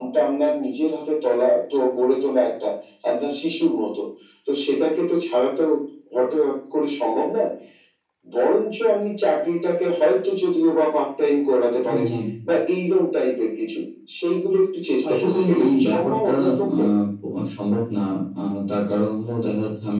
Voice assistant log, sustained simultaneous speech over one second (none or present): present